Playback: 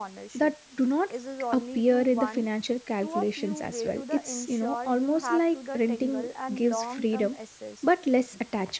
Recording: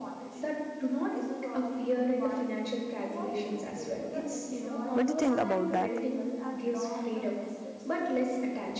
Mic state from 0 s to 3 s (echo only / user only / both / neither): echo only